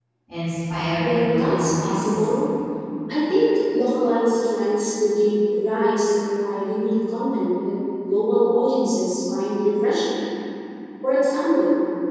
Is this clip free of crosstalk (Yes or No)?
No